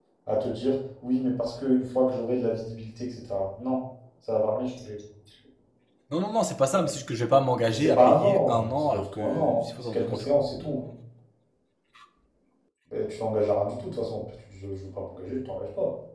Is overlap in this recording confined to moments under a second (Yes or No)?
No